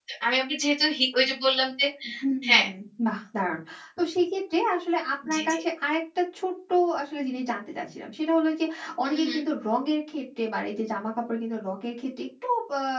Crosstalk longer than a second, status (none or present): none